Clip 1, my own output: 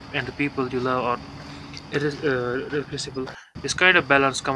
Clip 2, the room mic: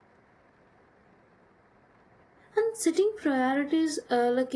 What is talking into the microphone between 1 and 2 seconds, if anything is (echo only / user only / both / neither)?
neither